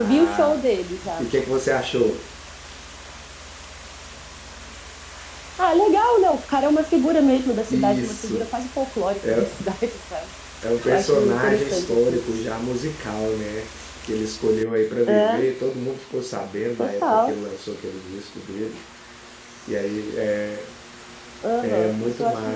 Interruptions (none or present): present